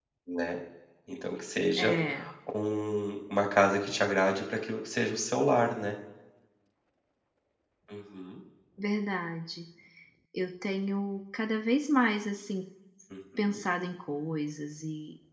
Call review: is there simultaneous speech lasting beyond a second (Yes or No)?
No